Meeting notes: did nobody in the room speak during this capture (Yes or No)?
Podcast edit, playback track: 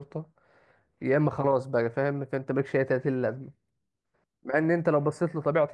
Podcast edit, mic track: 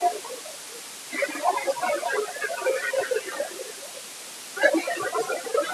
Yes